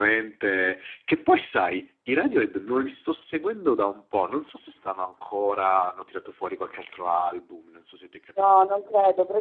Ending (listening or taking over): taking over